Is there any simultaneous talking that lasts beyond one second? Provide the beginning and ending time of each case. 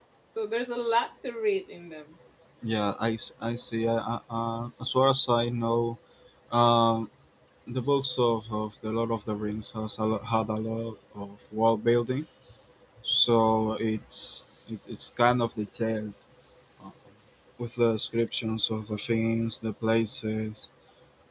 none

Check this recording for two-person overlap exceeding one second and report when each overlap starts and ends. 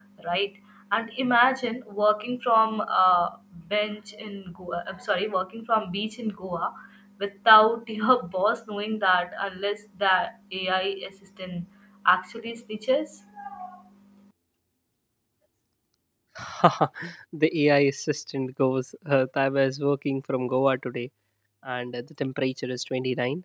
none

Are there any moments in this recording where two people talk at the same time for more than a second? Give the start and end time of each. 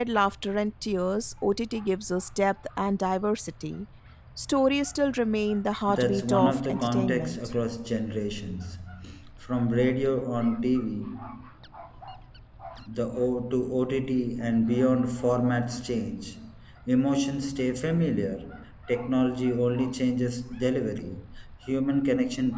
5.9-7.4

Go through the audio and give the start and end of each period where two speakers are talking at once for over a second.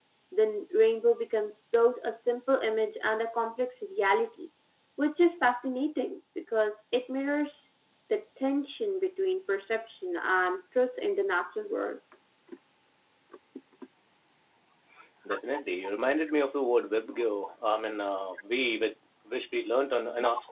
none

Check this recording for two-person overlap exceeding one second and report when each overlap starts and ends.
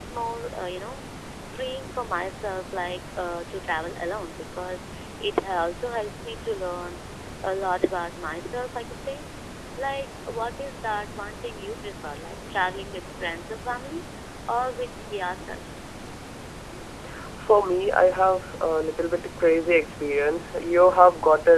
none

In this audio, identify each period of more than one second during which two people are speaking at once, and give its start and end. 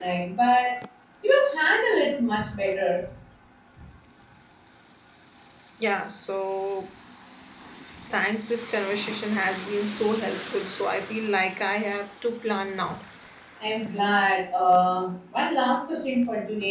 none

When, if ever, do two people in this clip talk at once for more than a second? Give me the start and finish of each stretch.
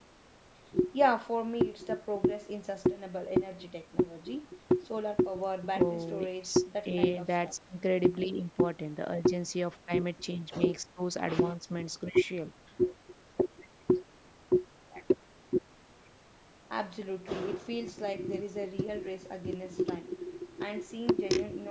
5.8-7.5

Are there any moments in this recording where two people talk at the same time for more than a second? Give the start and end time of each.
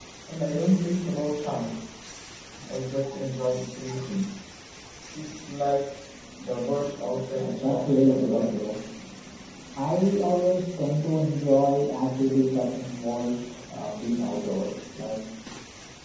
7.4-8.6

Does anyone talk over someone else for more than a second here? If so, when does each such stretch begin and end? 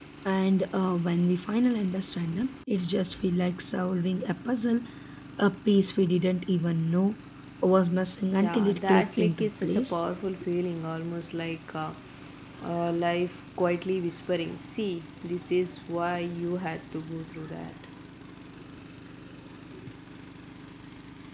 8.3-10.0

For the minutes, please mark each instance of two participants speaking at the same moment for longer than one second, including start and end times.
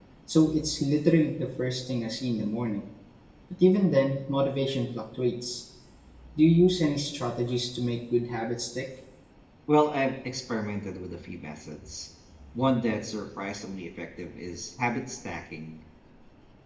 none

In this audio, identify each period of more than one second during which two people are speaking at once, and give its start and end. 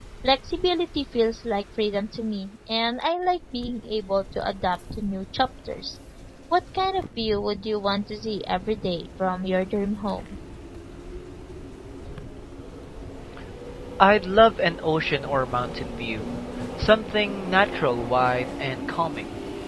none

